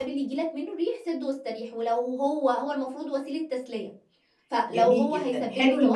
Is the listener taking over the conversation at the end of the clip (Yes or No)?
Yes